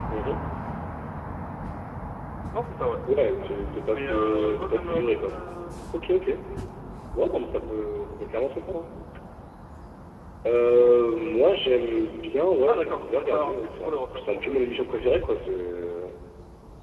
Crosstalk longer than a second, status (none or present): present